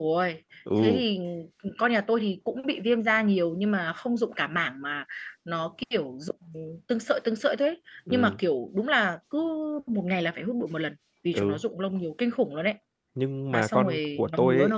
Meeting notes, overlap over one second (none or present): present